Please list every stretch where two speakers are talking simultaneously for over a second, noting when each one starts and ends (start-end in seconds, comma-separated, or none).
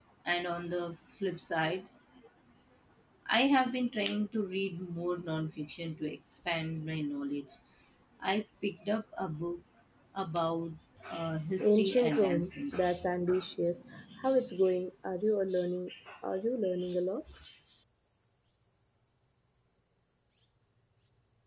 11.6-12.8